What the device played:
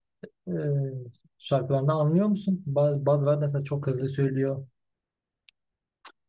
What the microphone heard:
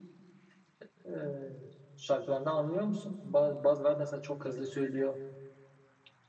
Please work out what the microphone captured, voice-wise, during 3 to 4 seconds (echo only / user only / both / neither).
echo only